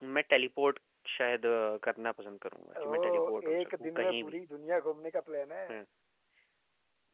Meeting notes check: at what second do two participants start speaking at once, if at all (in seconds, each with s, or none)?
2.8 s